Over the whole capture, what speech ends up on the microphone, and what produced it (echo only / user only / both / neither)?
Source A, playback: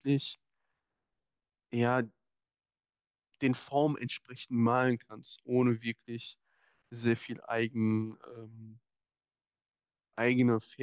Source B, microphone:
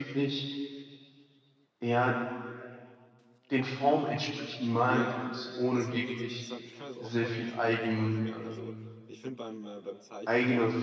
both